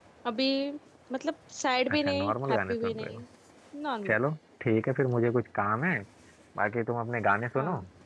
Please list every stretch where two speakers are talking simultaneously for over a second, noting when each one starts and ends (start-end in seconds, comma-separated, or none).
1.9-3.2